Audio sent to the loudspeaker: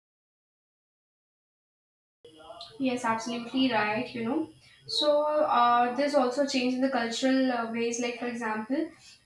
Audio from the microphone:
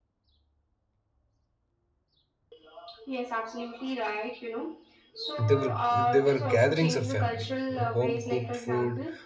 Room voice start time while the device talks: 5.4 s

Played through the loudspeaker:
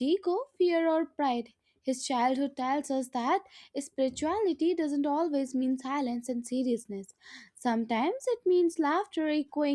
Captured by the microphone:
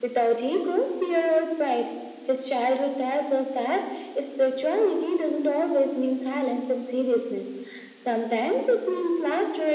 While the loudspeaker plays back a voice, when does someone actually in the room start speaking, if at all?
none

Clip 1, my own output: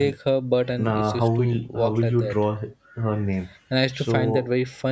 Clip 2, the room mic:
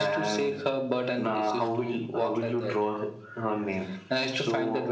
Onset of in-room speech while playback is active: none

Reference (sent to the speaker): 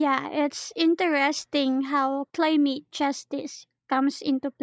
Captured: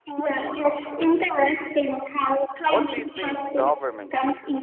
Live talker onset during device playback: 2.7 s

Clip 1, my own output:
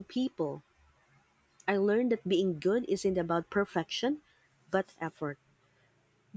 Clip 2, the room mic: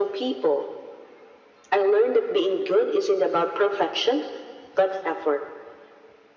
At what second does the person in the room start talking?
none

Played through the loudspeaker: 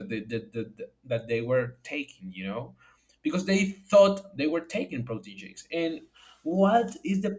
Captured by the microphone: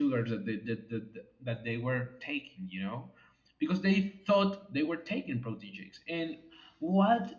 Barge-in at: none

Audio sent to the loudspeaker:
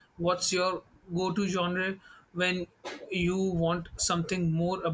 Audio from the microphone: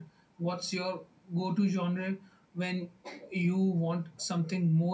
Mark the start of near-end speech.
none

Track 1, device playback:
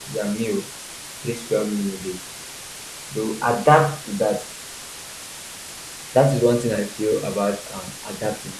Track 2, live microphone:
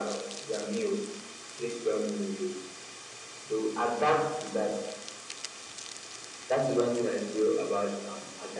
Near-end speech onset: none

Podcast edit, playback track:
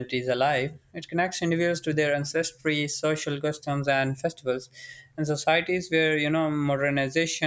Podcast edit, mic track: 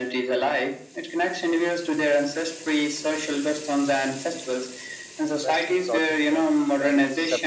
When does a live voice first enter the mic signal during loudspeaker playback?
5.3 s

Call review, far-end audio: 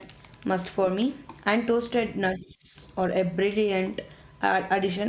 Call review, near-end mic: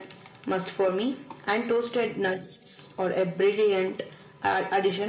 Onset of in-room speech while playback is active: none

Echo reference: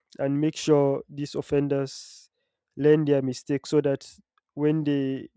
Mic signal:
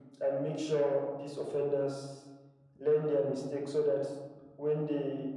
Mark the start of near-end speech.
none

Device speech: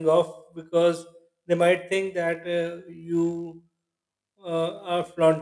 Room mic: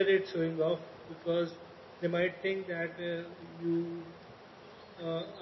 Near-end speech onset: none

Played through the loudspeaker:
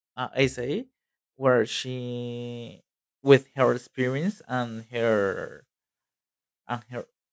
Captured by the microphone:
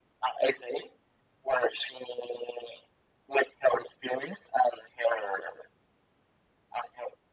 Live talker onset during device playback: none

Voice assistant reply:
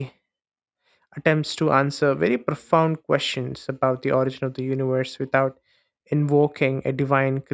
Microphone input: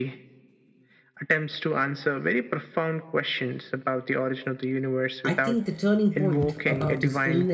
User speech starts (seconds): 5.2 s

